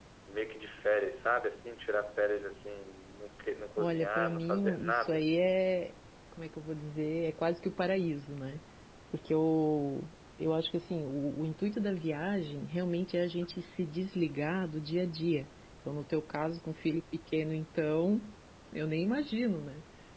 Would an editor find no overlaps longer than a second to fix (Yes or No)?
No